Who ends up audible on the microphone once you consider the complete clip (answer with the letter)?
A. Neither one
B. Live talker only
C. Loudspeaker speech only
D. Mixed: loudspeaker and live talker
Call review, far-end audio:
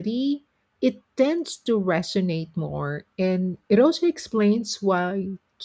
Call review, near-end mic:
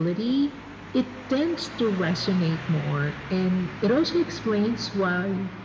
C